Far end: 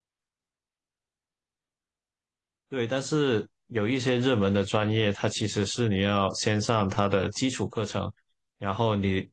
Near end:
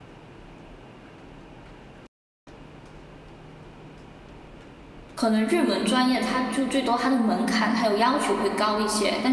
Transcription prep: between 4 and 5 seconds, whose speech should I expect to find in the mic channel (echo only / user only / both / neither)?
neither